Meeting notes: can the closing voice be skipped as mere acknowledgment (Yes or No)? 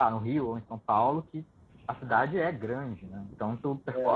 No